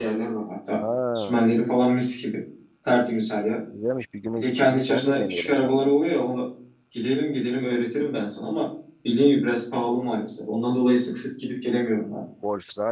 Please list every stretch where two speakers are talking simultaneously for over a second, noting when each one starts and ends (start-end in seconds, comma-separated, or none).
4.4-5.9